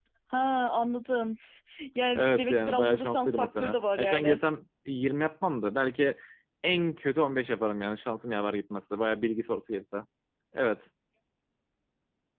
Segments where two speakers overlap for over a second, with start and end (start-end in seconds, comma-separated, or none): 2.1-4.4